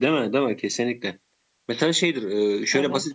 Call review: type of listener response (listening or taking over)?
listening